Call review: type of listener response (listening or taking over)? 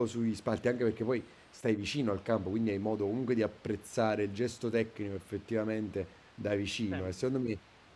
listening